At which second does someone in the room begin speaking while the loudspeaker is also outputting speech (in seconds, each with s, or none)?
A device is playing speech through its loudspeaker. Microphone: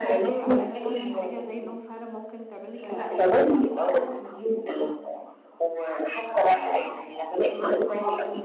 0.4 s